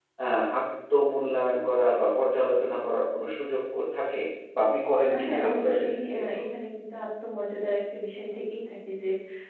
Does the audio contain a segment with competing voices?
Yes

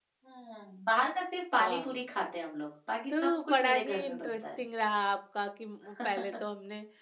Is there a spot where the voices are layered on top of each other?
Yes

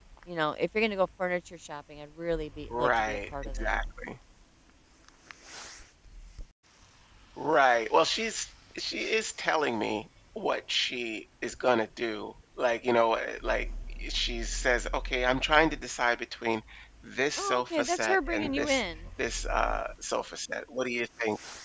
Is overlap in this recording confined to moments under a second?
No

